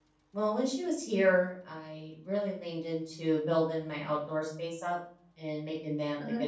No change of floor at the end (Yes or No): Yes